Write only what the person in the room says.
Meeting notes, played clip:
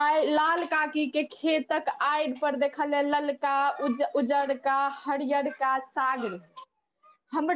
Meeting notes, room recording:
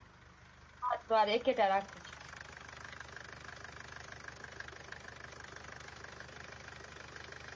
हर दुआर एकेटा राखै छी।

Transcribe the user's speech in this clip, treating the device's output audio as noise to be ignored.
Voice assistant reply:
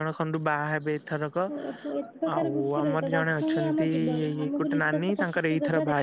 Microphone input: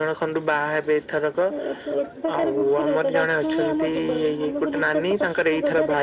none

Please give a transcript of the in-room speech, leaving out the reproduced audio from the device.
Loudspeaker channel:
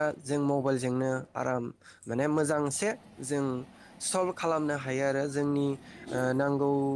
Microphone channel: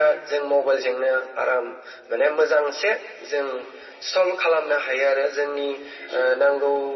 none

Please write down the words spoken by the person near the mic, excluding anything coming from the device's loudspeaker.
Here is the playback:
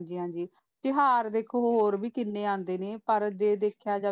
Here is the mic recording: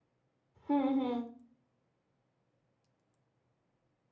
ਹੁੰ-ਹੁੰ।

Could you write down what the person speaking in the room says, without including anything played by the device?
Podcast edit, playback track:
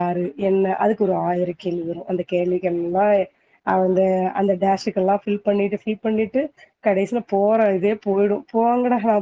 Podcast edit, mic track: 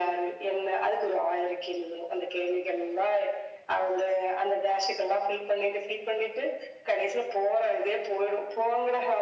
none

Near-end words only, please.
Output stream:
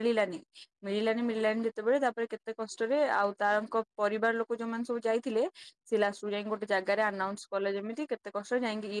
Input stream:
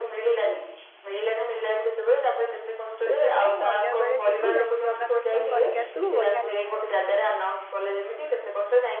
ସେଥିପାଇଁ ଅନ୍ୟ ବେଳେ ଯିବୁ ଯାଇକି ଜଗା ଦର୍ଶନ କରିକି ଆସିବୁ ବଢିଆ ଲାଗିବ।

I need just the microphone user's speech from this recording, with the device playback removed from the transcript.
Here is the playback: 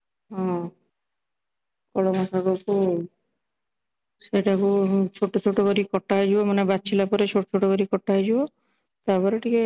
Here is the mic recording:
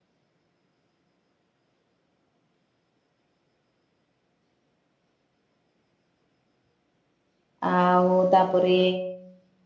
ଆଉ ତାପରେ

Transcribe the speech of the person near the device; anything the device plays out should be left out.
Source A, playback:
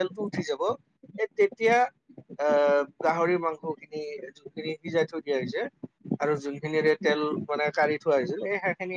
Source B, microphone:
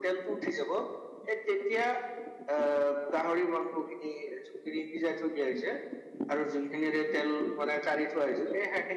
none

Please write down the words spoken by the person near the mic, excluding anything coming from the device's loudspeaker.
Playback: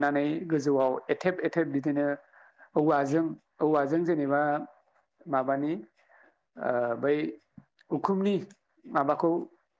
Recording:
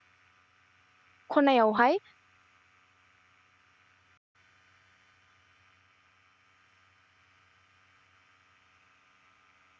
खनायाव हाय

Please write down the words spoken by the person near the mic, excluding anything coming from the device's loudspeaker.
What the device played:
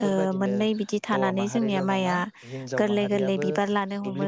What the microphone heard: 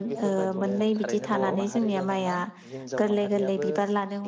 नंगौ नंगौ थारैनो नंगौ

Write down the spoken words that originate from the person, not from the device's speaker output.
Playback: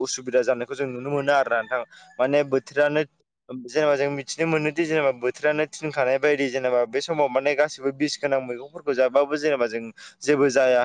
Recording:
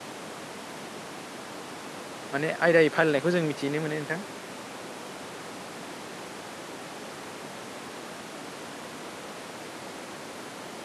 माने आयदायै फालिनायखौ जों मिथिनो मोनो नोंथां

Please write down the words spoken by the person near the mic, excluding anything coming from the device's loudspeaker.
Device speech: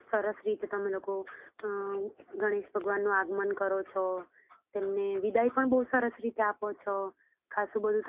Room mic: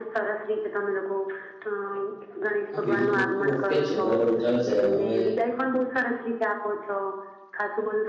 હા બીજો બધ ઓકે જ છે બરાબર ચાલે છે હવે,

